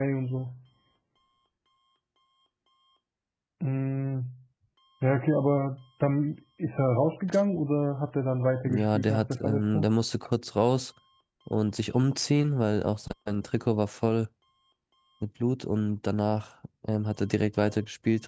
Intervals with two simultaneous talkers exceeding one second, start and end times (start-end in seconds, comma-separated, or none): 8.7-9.8